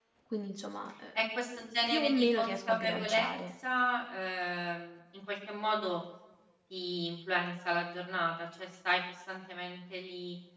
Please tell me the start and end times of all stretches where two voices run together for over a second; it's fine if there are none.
1.9-3.3

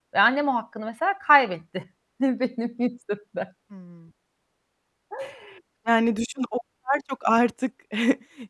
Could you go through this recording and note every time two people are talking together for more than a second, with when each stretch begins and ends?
none

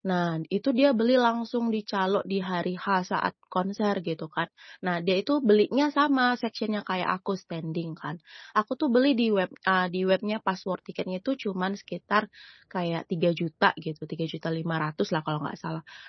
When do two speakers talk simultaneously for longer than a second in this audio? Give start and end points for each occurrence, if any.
none

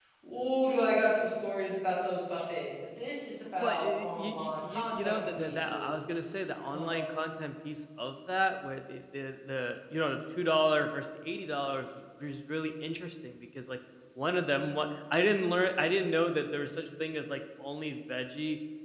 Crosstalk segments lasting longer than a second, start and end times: 3.6-6.2

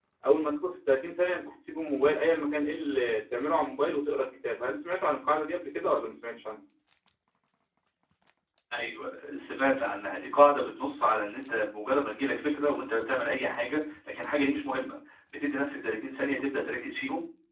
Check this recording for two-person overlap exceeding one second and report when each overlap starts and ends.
none

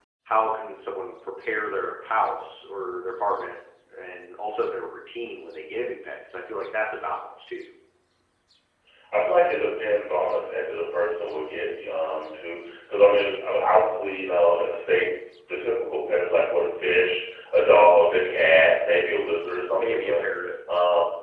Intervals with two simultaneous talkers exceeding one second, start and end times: none

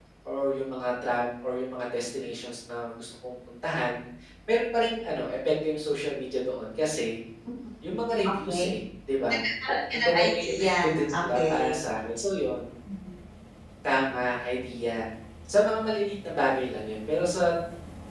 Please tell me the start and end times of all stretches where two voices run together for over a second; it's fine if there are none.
9.9-11.7

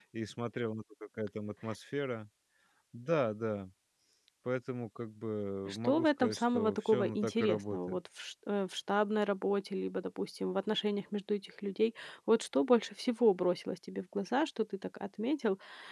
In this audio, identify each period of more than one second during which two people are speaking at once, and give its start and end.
5.7-8.0

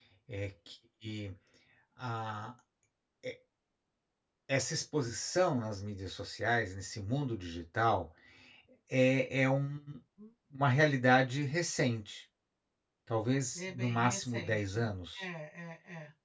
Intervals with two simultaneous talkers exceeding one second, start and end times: 13.6-14.8

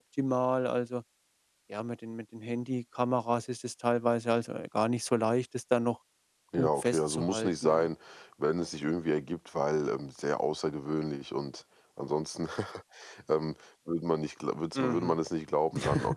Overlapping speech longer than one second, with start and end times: 6.6-7.9

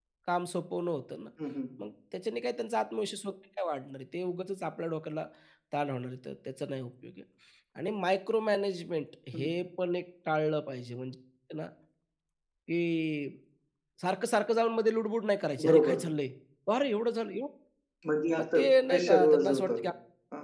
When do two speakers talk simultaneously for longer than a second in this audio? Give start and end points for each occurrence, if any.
18.4-19.7

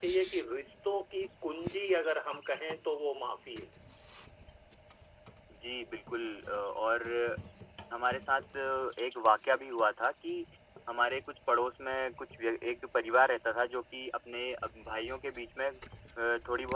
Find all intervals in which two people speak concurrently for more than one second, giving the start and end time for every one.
none

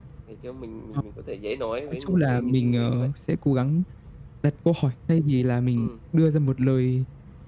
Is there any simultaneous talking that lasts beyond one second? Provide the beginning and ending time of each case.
1.9-3.1

